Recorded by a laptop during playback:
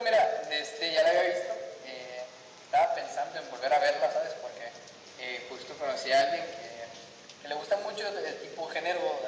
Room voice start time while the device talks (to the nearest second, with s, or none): none